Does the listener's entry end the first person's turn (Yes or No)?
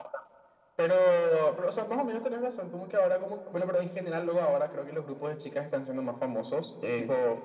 No